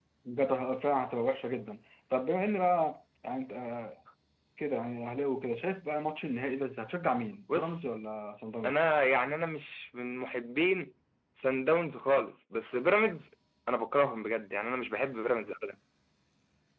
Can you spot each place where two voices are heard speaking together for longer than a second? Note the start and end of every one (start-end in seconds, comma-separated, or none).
none